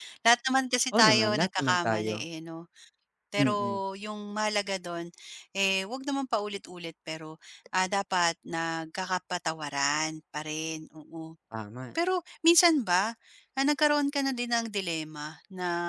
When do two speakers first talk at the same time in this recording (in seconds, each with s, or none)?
0.9 s